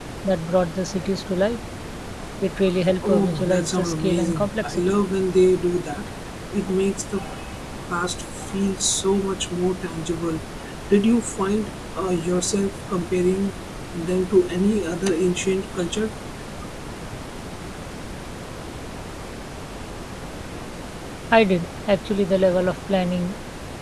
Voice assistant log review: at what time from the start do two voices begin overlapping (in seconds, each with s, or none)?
3.0 s